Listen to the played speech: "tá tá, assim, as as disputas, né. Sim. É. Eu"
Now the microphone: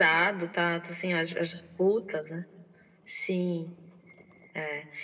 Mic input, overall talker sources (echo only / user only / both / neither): echo only